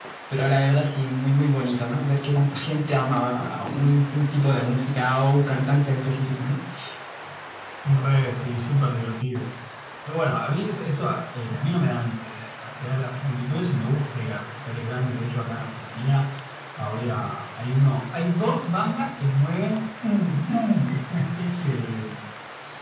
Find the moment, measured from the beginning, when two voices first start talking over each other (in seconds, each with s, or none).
none